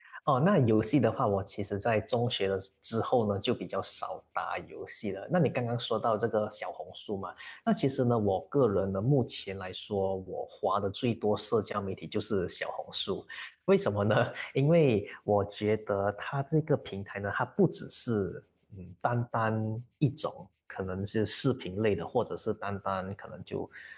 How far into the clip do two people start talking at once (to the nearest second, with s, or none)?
none